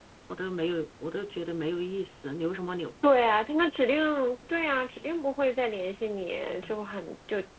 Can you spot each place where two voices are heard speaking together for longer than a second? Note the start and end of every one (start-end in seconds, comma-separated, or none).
none